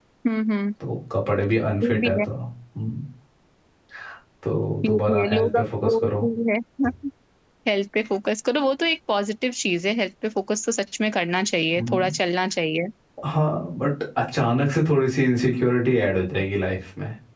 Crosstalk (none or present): present